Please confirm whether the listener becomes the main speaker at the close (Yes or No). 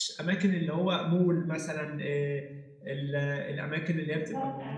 No